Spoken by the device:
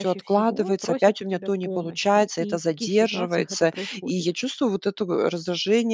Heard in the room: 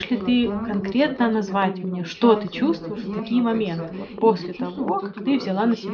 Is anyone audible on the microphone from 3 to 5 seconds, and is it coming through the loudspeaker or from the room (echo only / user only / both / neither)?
both